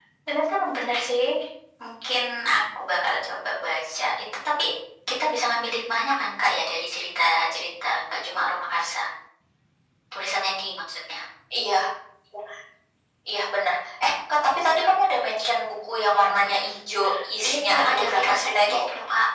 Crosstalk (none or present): present